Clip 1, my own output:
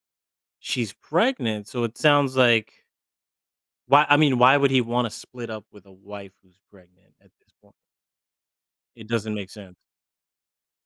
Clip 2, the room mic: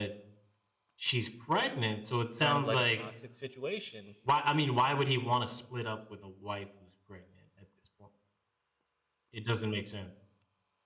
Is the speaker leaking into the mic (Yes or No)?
Yes